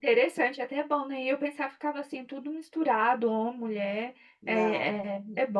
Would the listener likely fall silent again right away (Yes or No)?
Yes